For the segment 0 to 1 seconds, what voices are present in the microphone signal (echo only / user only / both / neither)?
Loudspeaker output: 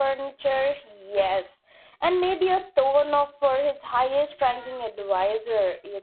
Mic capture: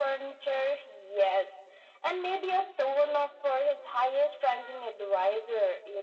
echo only